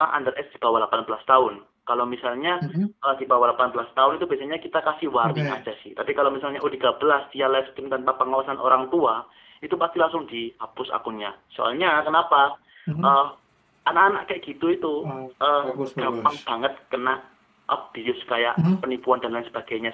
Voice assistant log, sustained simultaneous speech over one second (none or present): none